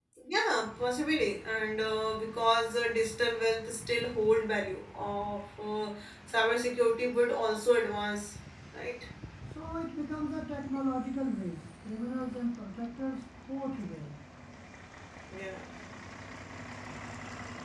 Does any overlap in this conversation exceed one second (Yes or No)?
No